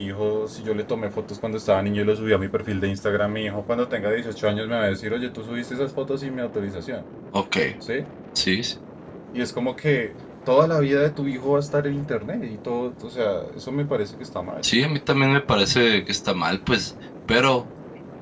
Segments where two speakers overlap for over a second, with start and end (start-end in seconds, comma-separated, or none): none